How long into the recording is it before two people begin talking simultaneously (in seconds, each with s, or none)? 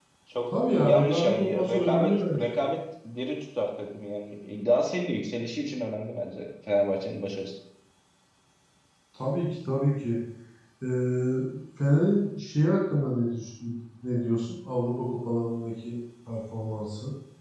0.8 s